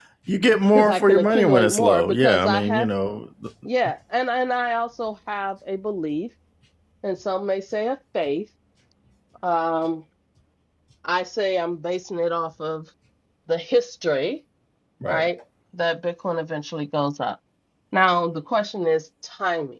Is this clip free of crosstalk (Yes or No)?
No